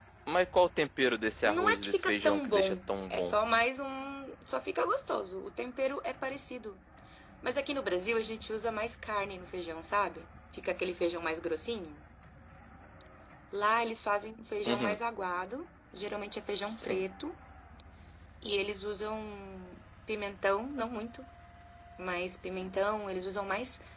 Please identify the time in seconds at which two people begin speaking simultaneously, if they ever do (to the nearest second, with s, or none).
1 s